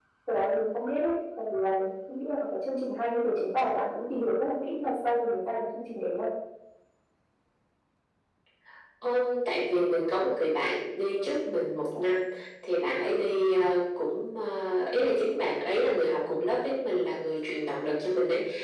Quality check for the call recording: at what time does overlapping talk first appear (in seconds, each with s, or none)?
none